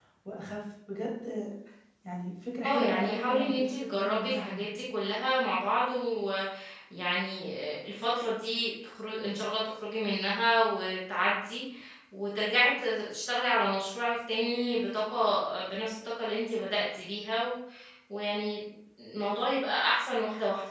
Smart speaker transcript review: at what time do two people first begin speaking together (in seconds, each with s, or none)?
2.6 s